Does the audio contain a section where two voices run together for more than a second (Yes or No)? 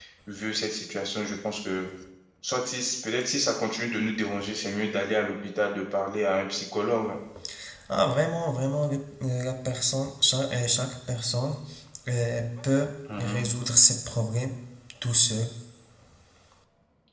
No